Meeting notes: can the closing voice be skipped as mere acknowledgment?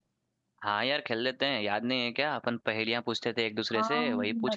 No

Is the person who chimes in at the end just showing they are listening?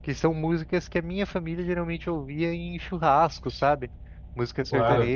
Yes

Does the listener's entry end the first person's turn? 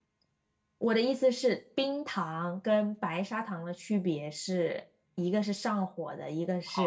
Yes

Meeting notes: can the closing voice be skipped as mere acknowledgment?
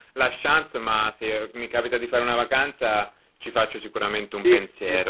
No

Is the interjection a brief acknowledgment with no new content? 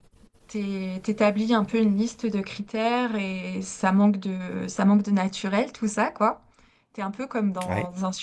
Yes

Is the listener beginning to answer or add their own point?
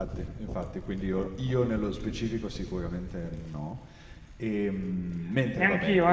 Yes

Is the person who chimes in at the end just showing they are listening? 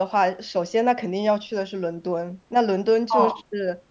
Yes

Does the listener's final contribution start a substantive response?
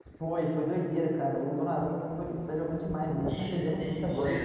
Yes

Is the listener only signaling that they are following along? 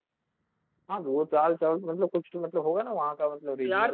No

